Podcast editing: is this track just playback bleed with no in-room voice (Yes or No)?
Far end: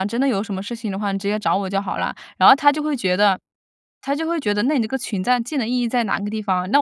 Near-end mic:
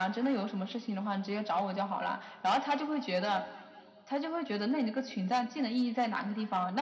Yes